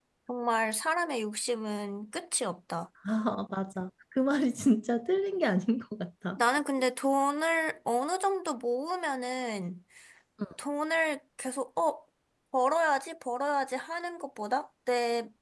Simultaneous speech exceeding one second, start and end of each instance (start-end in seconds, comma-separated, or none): none